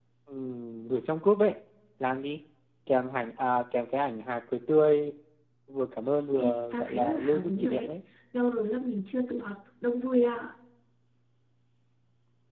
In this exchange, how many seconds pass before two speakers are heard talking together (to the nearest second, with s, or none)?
6 s